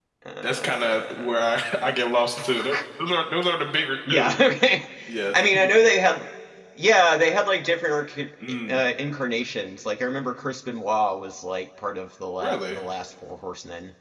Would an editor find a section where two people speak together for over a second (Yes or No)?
Yes